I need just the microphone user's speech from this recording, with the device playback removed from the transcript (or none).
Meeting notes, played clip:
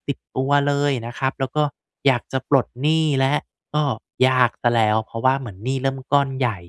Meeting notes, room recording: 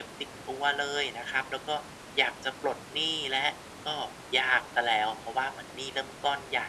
none